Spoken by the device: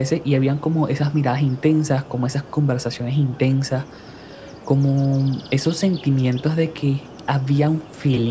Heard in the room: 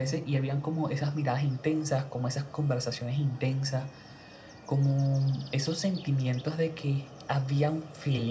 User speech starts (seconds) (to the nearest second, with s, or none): none